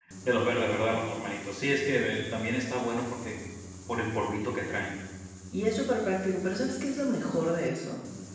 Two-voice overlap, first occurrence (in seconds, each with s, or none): none